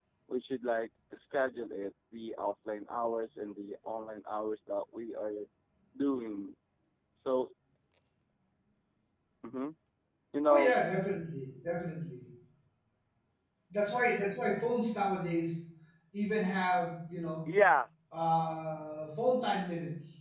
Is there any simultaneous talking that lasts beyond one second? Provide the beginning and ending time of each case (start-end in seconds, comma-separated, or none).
none